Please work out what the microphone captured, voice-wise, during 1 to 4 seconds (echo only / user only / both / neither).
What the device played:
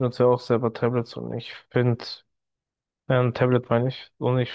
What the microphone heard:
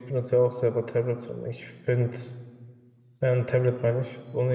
echo only